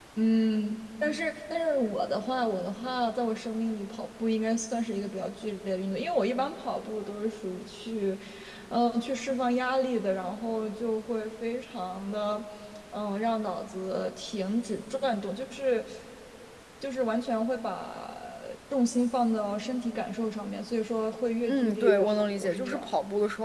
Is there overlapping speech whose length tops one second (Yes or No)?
Yes